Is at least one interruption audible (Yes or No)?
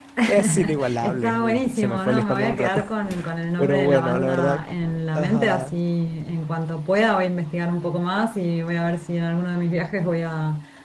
Yes